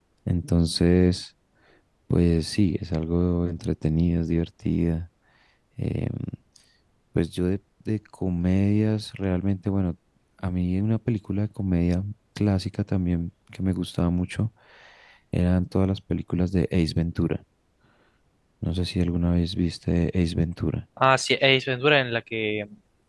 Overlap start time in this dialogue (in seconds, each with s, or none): none